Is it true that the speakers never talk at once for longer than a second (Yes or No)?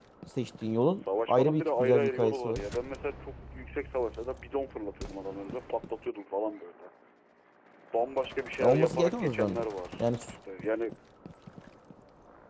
No